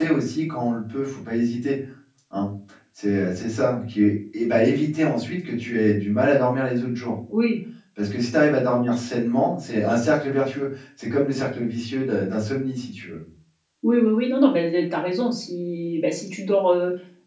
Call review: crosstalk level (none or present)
none